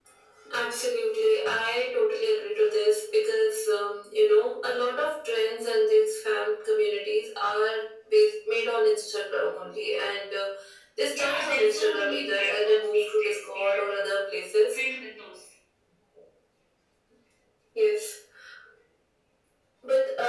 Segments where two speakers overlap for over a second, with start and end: 11.1-13.9

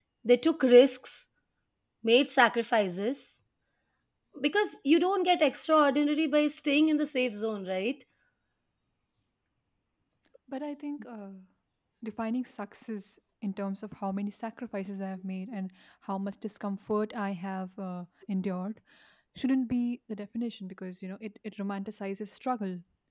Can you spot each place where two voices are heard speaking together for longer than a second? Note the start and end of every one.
none

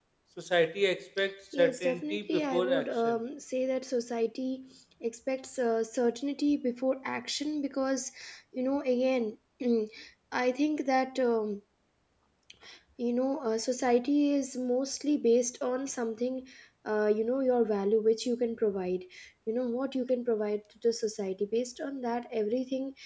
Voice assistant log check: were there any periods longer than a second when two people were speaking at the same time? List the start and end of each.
1.5-3.2

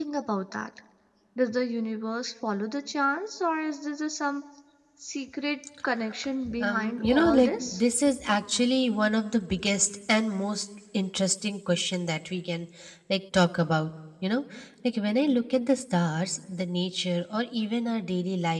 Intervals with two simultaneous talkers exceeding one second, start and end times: 6.6-7.8

